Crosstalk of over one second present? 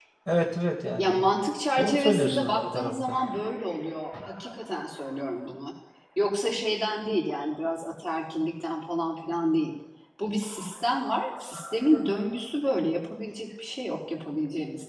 Yes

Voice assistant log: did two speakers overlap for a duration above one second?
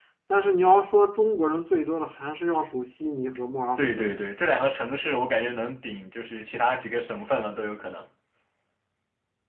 No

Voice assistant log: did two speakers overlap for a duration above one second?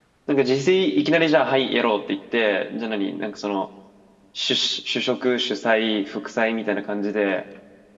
No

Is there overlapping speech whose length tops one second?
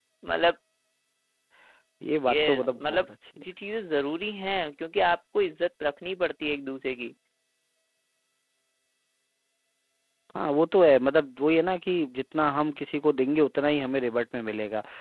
No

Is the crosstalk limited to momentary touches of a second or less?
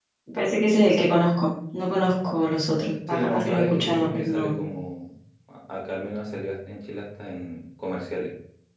No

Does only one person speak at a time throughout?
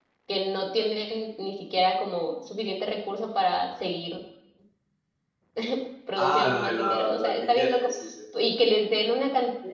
No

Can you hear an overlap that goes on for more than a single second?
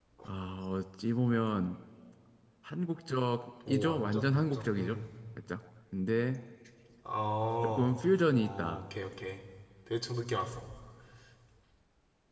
Yes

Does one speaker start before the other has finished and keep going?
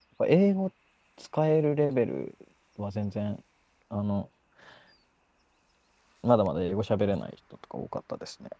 No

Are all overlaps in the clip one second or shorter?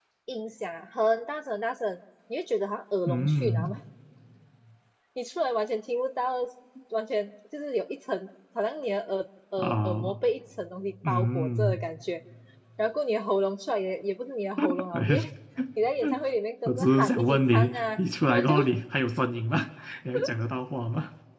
No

